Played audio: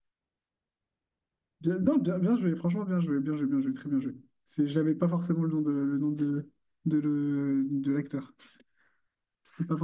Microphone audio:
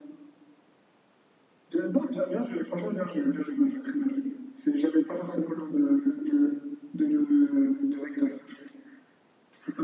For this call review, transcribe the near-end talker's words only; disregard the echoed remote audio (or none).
none